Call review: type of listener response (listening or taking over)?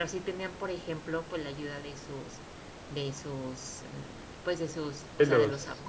listening